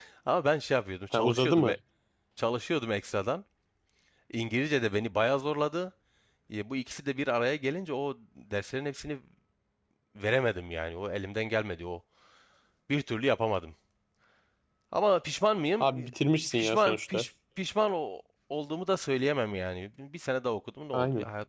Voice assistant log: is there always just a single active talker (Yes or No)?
No